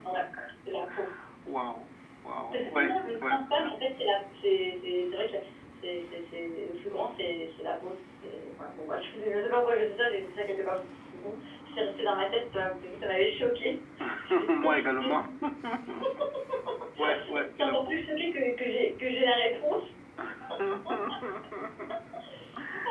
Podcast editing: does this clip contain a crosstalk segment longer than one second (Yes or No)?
Yes